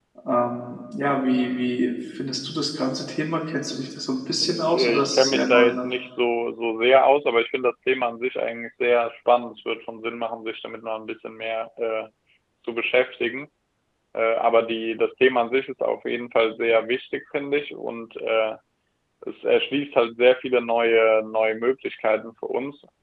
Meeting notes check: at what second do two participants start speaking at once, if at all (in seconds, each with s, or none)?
4.4 s